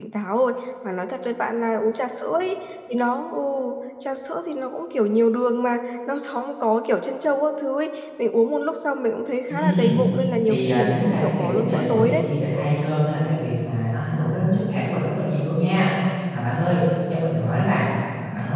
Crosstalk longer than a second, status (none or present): present